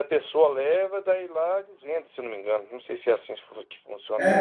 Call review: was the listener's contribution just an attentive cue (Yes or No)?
No